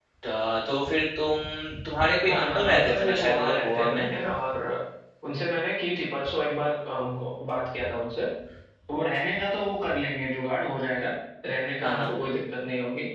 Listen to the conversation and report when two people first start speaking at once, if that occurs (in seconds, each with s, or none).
2.2 s